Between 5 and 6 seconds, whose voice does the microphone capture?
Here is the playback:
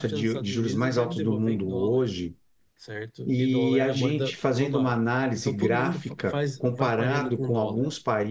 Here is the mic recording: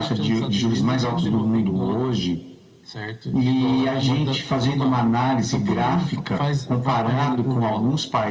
echo only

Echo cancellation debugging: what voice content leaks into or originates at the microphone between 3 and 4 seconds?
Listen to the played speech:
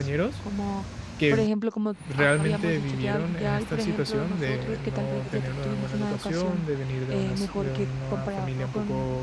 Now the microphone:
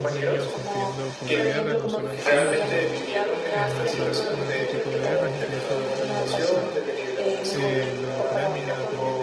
both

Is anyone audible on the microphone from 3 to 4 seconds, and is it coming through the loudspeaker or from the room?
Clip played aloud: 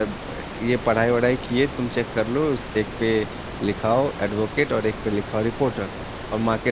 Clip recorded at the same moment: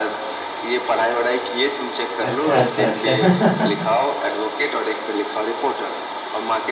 both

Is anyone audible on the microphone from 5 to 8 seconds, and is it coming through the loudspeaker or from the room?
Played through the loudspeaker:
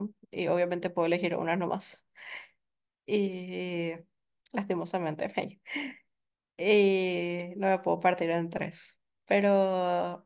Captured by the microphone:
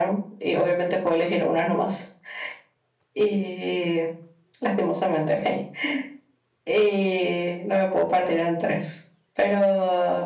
echo only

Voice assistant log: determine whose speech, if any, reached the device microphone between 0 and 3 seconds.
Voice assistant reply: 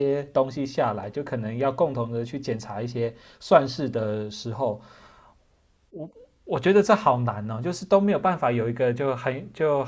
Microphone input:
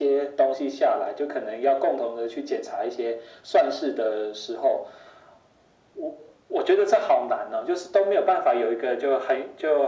echo only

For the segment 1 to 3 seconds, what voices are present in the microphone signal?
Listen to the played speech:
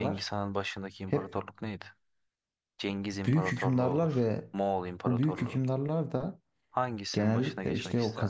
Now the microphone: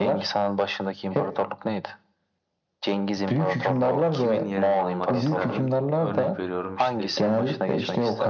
echo only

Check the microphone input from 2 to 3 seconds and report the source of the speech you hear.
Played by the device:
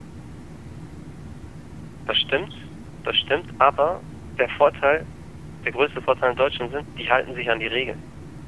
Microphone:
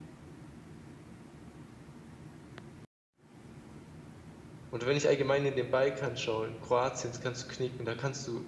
neither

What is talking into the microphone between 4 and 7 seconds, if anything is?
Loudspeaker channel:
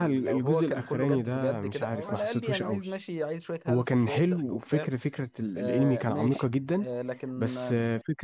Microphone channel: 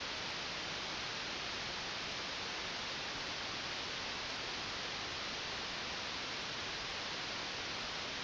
neither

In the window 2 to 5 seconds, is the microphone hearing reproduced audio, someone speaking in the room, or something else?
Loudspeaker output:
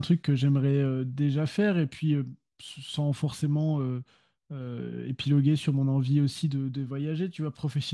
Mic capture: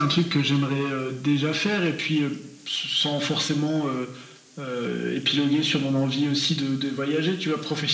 echo only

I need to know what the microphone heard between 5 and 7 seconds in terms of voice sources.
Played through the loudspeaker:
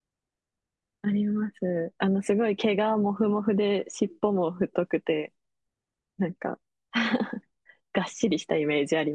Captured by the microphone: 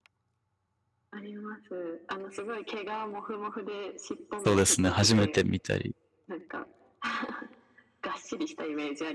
both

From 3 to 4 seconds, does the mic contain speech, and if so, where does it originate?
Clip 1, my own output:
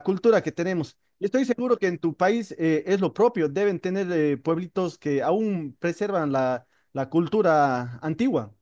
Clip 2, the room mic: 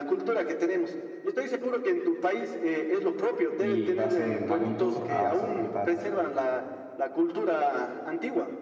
both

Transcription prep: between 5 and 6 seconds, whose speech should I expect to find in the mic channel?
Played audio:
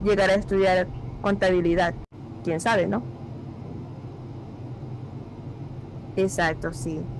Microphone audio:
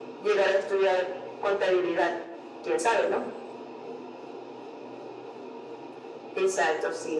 neither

